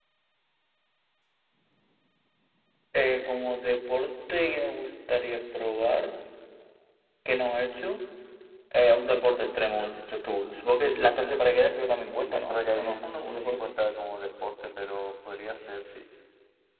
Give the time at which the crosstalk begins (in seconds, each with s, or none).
11.7 s